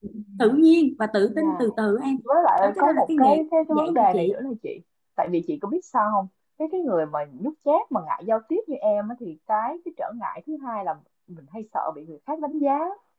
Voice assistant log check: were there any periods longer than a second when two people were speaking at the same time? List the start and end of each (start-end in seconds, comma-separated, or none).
2.6-4.3